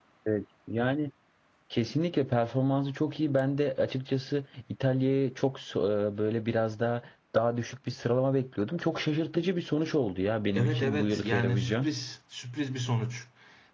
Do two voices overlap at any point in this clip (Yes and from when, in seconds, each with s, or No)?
Yes, from 10.6 s